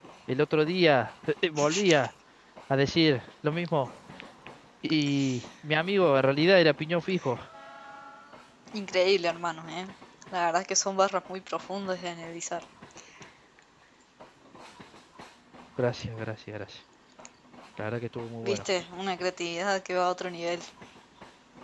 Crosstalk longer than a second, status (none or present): none